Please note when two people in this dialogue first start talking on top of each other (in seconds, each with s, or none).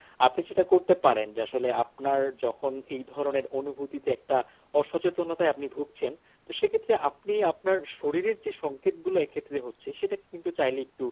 none